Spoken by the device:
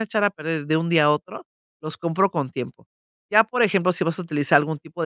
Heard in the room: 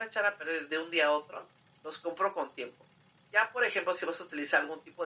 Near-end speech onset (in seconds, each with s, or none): none